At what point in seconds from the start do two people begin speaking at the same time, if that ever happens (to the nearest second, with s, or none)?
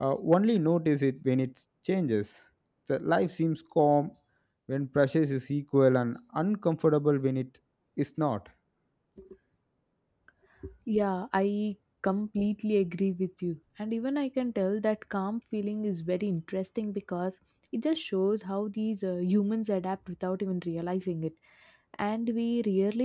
none